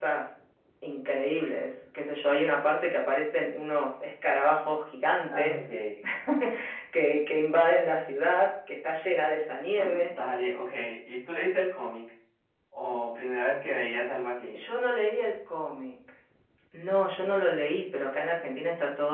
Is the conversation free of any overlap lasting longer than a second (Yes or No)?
Yes